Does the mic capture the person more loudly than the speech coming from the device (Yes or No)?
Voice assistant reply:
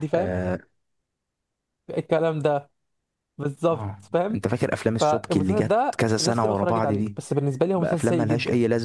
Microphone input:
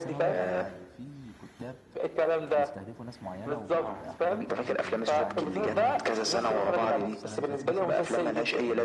No